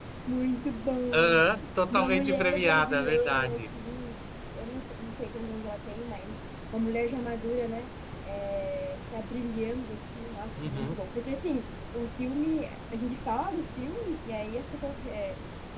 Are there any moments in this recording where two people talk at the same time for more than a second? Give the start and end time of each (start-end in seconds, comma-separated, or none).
1.9-3.6